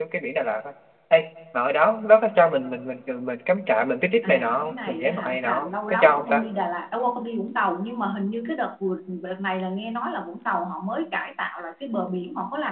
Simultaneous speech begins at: 4.2 s

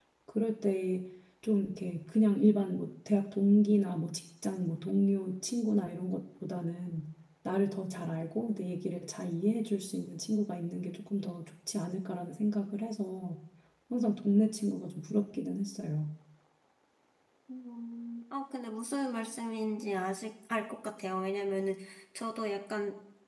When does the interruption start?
none

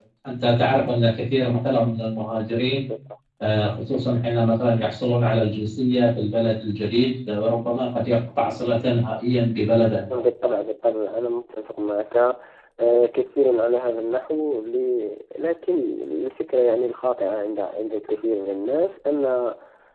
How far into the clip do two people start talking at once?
none

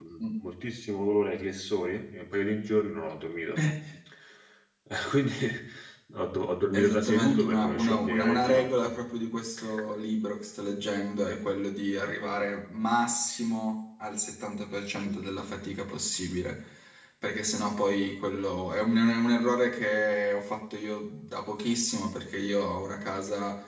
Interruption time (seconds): 6.7 s

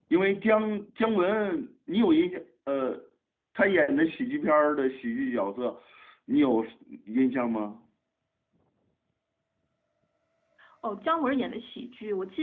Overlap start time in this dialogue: none

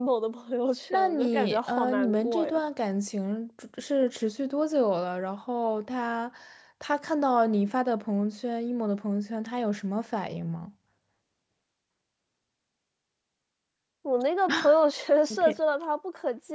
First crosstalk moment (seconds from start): 0.9 s

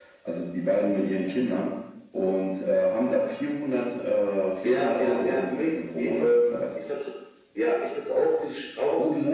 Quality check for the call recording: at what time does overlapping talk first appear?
4.6 s

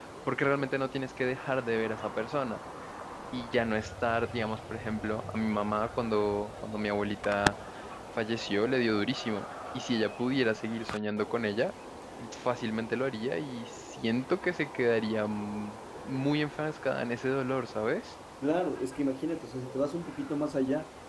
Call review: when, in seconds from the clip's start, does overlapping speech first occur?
none

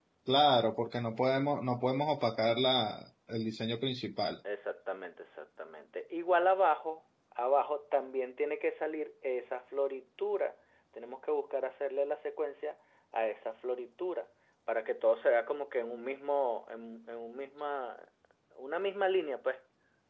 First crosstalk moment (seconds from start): none

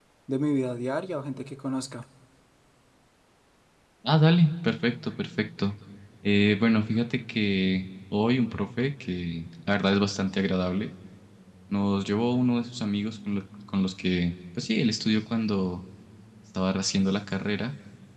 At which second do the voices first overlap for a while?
none

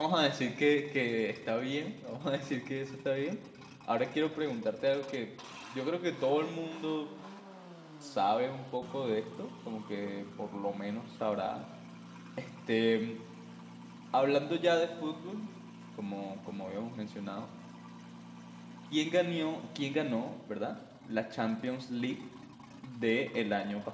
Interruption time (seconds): none

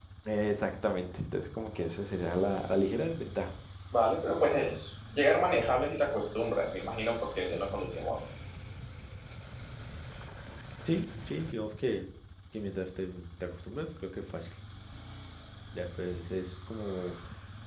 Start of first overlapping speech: none

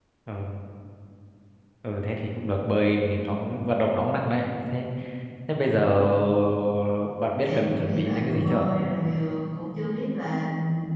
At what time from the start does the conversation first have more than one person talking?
7.4 s

